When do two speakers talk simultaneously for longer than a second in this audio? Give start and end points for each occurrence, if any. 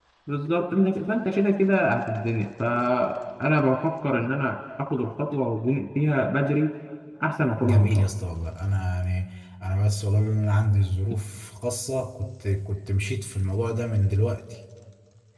none

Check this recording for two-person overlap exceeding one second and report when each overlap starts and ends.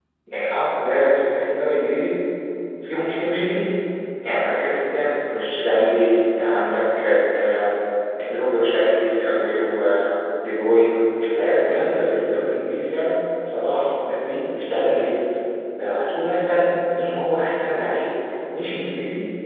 none

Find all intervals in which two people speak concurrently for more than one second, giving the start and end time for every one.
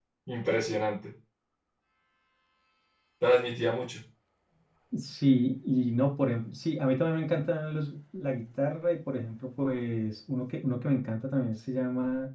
none

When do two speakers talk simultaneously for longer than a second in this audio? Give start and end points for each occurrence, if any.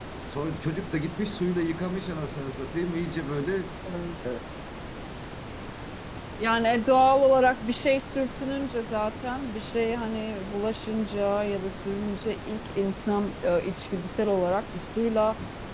none

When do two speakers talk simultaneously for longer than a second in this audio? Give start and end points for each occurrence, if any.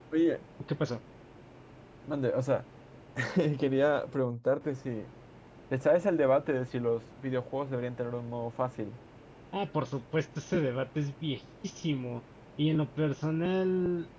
none

